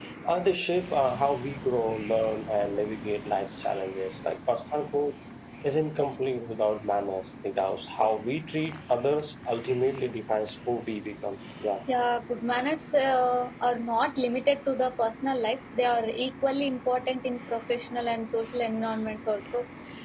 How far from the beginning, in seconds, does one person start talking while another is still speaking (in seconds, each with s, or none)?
none